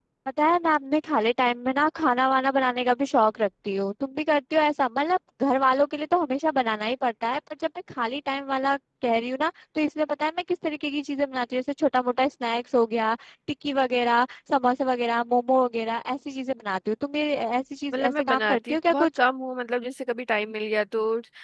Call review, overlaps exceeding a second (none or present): present